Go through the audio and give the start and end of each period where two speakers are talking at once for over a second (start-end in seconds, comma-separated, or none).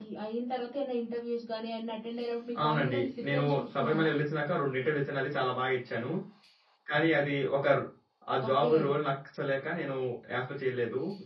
2.6-4.1